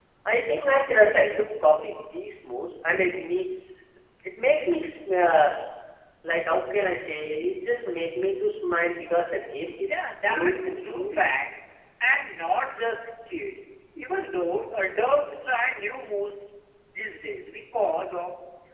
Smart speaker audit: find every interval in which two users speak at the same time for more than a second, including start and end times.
9.8-11.3

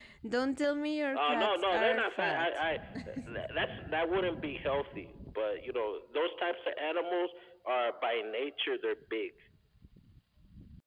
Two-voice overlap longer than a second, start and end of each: 1.1-2.5

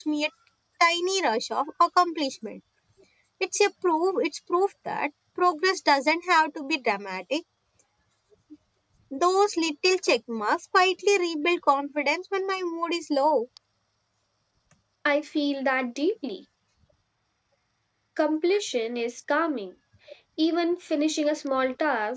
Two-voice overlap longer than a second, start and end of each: none

